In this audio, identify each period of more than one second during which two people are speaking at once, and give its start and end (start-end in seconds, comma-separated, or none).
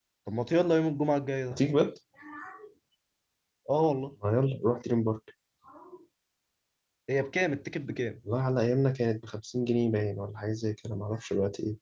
none